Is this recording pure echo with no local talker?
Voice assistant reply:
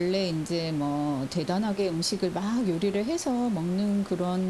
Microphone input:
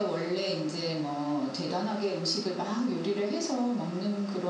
Yes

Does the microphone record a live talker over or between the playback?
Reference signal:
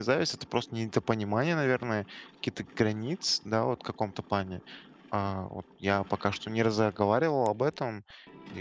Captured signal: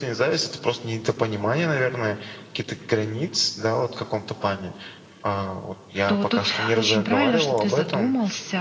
Yes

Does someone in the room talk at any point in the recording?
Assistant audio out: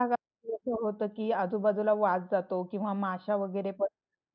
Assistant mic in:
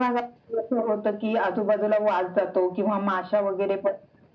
No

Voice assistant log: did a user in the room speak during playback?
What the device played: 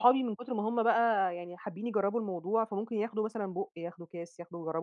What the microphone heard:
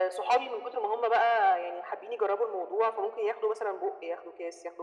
No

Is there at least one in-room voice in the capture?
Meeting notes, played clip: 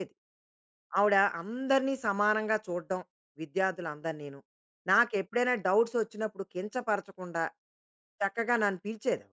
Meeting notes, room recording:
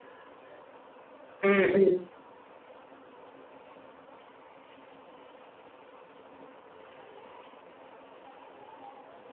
Yes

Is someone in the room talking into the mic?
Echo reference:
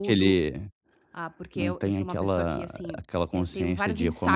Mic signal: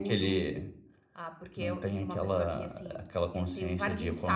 No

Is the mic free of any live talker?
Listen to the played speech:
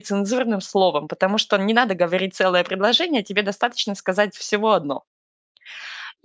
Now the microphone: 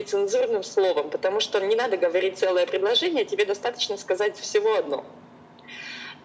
Yes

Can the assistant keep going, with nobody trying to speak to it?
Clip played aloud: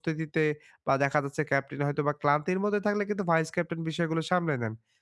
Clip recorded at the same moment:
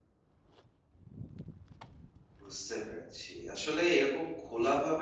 No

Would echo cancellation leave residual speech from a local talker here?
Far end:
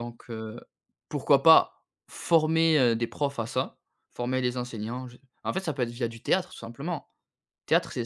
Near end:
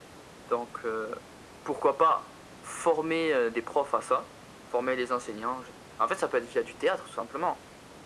No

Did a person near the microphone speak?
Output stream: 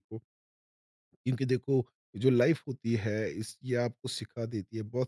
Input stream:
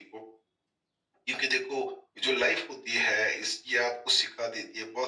No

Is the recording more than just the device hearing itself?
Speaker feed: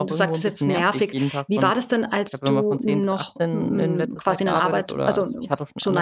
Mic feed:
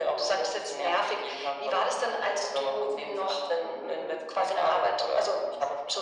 No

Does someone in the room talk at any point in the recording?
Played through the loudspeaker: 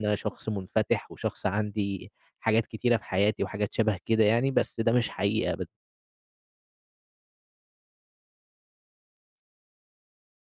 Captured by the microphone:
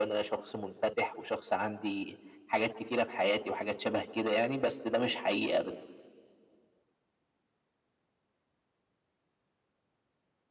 No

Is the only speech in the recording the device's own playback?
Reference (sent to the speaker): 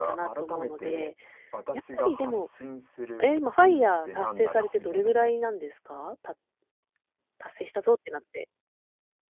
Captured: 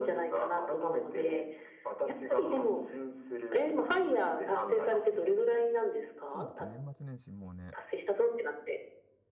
No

